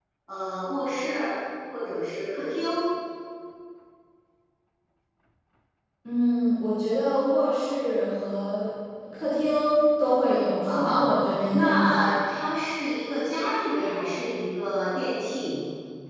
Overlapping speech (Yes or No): Yes